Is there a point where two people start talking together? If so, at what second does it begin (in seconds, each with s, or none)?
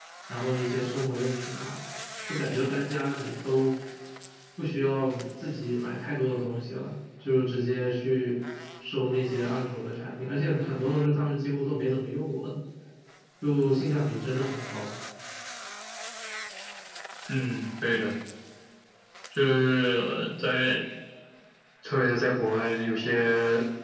none